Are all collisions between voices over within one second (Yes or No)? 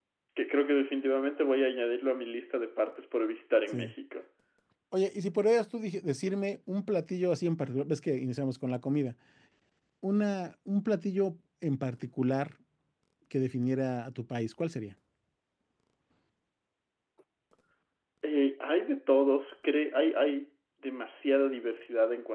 Yes